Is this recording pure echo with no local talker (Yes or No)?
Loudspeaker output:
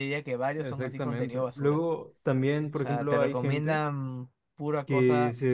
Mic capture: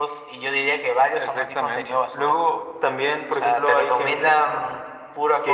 Yes